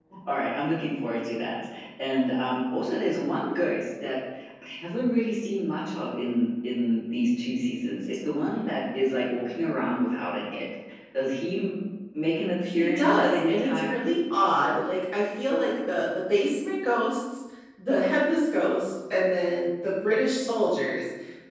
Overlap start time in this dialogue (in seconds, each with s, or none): 12.8 s